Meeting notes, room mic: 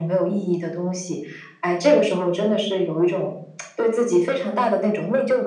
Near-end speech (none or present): none